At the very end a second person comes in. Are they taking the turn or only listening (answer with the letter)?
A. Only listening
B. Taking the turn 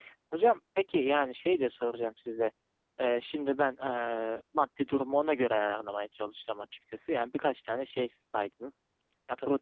A